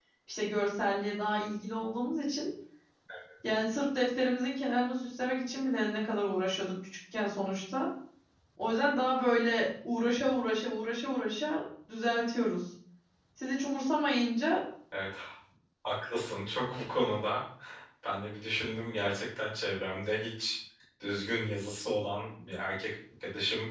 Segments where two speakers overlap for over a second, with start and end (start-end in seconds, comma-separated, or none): none